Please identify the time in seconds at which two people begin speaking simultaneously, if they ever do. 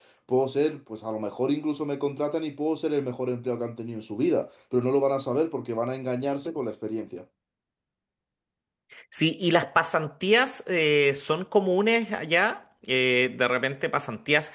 none

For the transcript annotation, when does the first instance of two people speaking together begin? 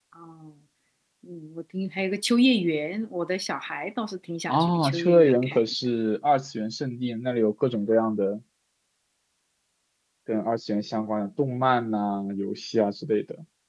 4.5 s

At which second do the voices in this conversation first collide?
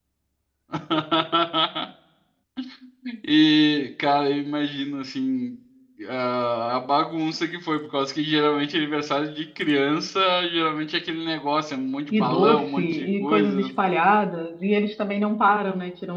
12.1 s

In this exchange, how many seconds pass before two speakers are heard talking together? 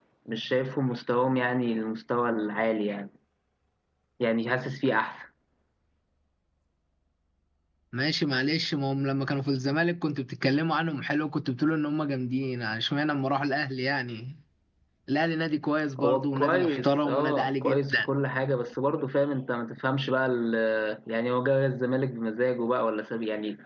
16.0 s

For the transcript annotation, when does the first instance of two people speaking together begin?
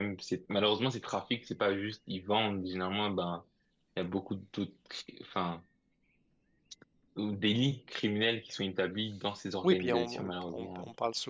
9.6 s

